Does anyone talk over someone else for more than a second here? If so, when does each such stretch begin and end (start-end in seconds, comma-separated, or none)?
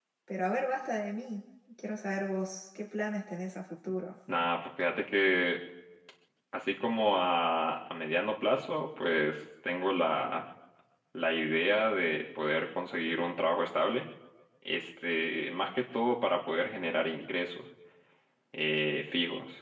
none